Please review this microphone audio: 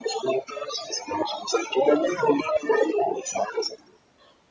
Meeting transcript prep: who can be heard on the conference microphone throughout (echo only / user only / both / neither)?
echo only